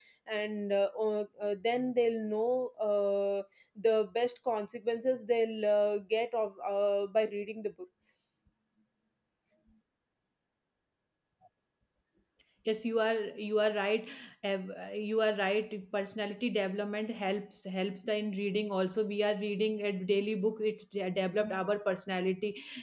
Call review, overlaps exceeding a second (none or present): none